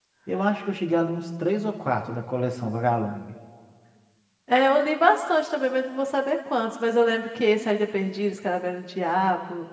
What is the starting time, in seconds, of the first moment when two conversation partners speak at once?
none

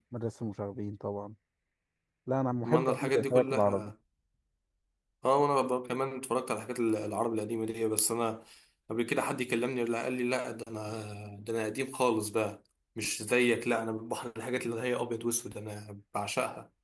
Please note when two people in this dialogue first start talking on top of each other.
2.6 s

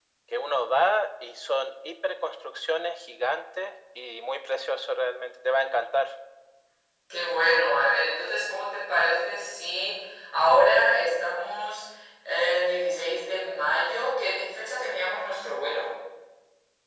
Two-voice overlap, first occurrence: none

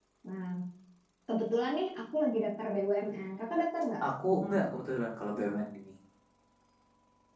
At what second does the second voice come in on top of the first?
none

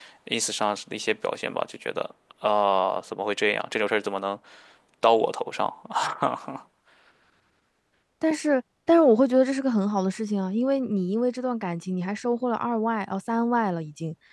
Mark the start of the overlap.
none

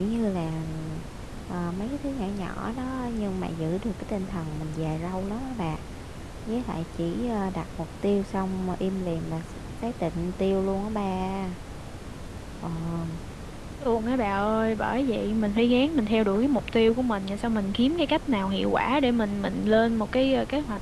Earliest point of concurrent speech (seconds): none

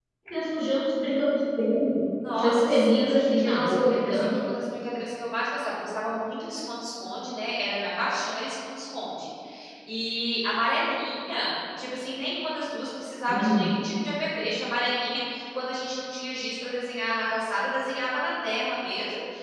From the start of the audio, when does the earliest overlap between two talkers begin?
2.4 s

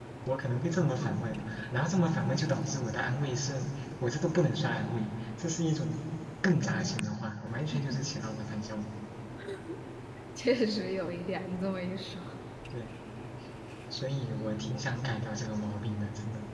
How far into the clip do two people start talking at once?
none

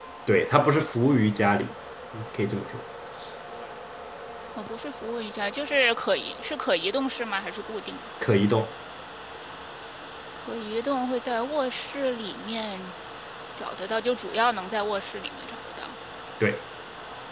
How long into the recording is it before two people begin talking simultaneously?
none

